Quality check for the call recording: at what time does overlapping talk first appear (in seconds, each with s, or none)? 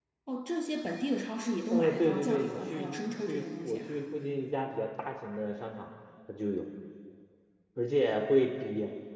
1.7 s